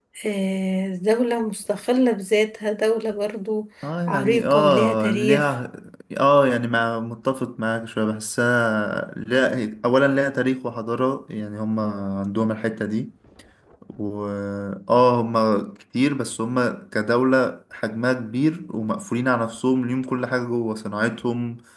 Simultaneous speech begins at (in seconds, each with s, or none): 4.1 s